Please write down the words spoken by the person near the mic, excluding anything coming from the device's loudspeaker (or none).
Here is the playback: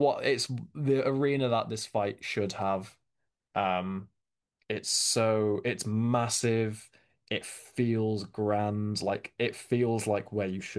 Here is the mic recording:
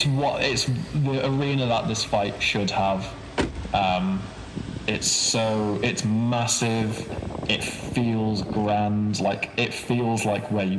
none